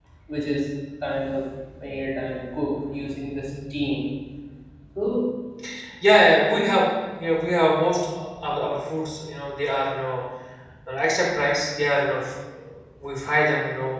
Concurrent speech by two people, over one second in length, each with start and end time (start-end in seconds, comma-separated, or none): none